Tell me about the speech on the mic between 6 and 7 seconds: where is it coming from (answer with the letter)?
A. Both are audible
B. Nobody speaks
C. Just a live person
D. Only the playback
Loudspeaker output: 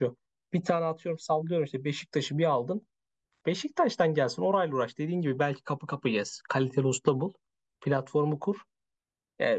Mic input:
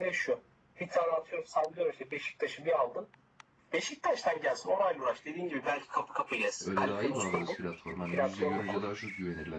A